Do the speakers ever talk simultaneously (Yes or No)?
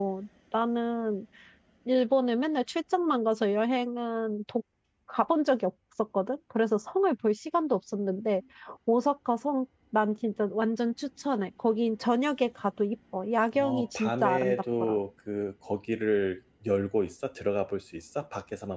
Yes